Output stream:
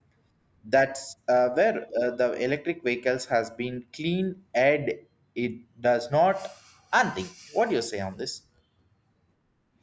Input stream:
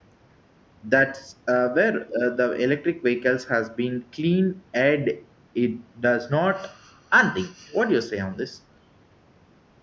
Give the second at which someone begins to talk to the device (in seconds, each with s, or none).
none